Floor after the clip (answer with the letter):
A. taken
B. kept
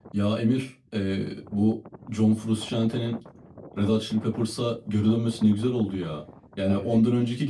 B